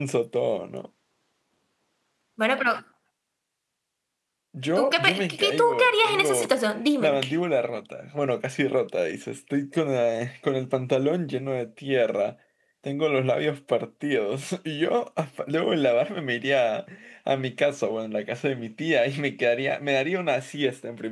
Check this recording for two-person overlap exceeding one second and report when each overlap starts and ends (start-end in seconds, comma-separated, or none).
4.8-6.5